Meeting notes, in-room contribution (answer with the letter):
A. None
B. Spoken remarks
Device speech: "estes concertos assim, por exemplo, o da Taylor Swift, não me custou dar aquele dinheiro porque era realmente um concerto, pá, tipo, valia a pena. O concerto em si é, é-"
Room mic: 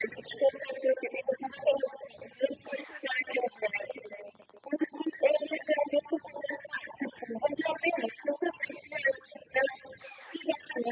A